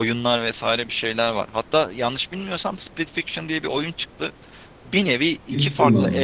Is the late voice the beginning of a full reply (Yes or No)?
No